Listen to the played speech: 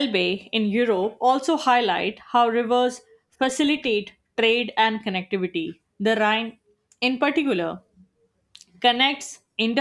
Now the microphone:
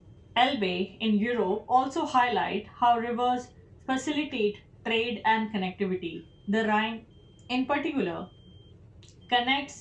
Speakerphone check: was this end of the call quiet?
Yes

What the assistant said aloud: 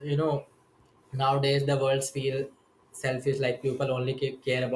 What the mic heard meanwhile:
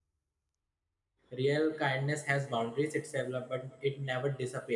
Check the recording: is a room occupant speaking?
Yes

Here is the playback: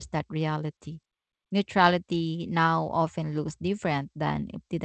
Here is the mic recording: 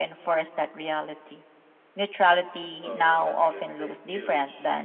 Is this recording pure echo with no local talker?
No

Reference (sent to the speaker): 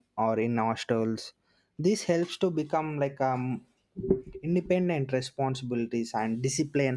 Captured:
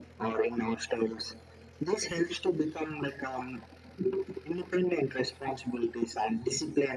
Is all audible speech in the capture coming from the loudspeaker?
Yes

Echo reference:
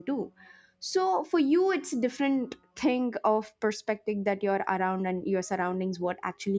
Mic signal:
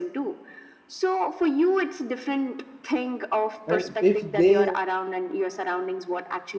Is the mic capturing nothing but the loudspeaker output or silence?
No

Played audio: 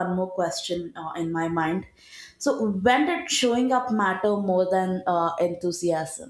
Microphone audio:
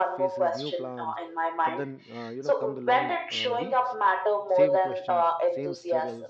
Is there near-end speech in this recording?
Yes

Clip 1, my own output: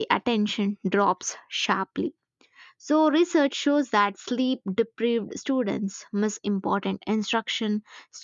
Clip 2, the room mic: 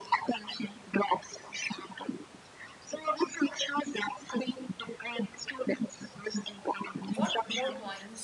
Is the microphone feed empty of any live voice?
No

